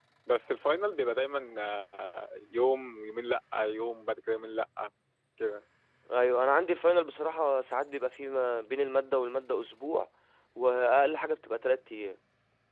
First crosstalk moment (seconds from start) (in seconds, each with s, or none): none